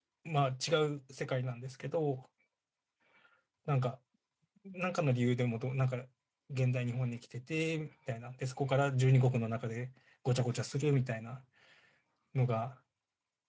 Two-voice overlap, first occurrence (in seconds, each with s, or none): none